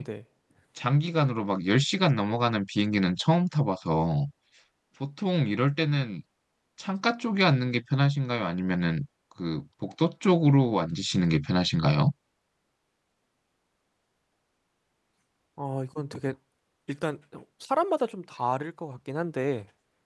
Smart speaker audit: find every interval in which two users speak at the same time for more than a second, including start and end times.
none

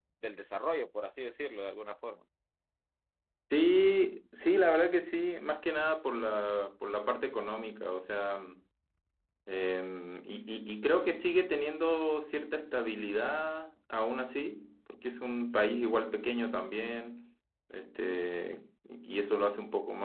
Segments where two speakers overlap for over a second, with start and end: none

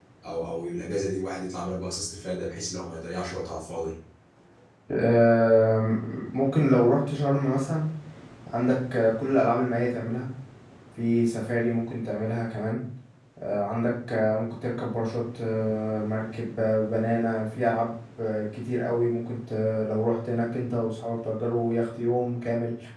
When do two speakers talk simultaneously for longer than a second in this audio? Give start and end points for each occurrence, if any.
none

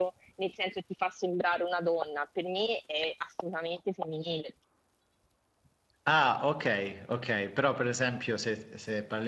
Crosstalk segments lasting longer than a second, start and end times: none

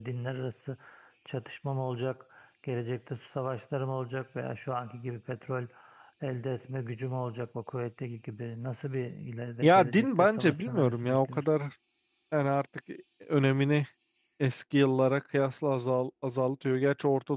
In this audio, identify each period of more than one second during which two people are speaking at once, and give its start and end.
9.6-11.4

